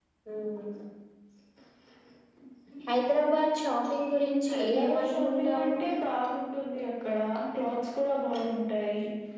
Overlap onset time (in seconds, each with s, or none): 4.5 s